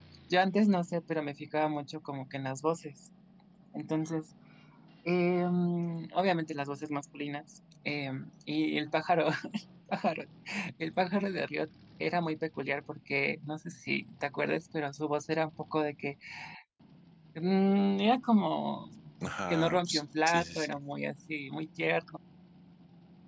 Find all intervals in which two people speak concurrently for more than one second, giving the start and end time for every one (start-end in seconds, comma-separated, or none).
19.5-20.8